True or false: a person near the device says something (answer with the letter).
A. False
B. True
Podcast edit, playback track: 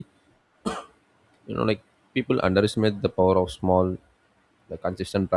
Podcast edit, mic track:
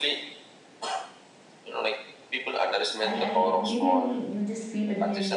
B